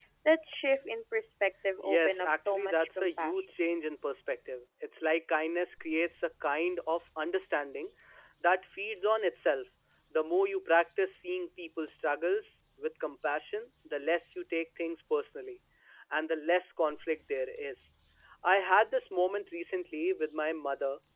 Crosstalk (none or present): present